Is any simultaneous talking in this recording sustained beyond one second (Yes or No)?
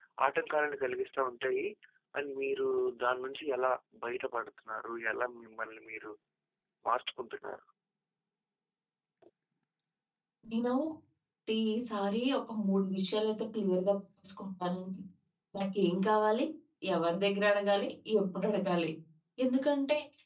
No